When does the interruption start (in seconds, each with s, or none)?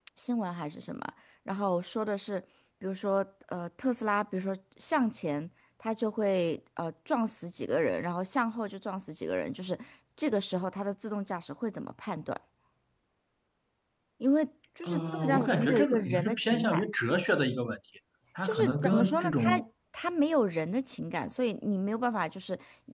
14.8 s